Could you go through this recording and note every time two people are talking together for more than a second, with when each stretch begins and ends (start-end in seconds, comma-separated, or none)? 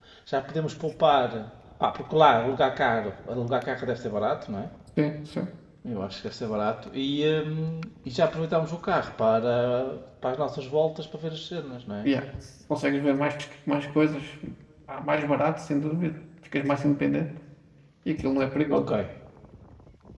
none